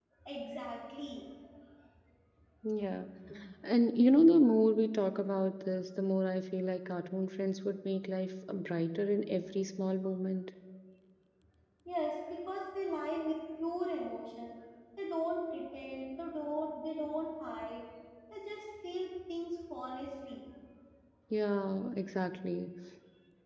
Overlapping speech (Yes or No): No